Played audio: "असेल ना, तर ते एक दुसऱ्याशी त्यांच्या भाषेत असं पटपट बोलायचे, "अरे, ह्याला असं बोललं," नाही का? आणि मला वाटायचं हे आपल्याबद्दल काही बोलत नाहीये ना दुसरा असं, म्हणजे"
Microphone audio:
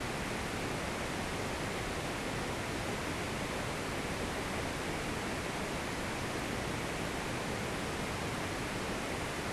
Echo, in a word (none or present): none